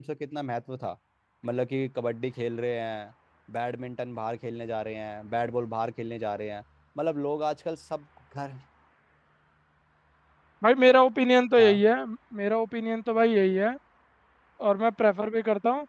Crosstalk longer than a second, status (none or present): none